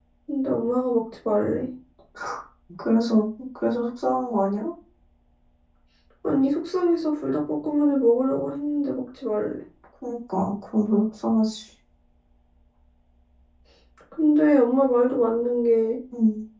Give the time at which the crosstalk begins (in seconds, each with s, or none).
none